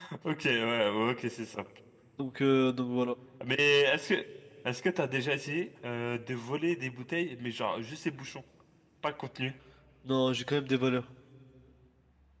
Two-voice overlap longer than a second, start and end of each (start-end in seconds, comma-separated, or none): none